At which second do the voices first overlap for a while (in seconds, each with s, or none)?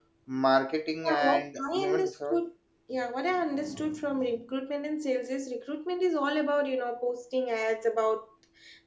1.1 s